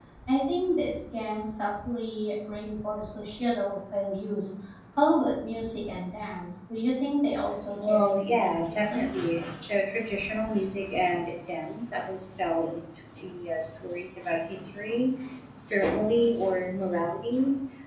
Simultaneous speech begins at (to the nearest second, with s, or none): 8 s